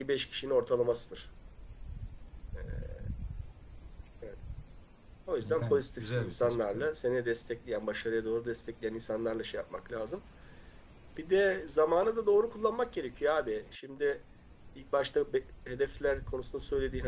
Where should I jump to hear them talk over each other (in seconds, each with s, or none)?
5.4 s